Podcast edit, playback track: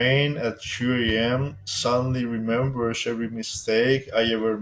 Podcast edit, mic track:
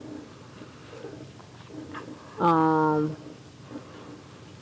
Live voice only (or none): um